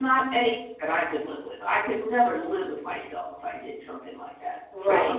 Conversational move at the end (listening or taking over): taking over